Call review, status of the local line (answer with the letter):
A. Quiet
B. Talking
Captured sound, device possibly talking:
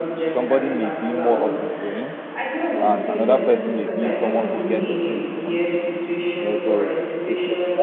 B